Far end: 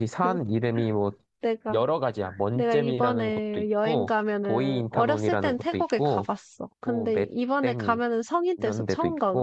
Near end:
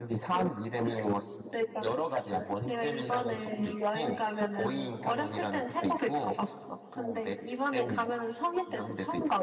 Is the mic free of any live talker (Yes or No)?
Yes